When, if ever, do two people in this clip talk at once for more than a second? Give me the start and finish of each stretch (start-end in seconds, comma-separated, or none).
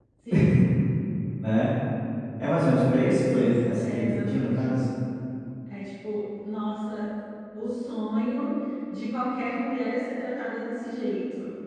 3.3-4.5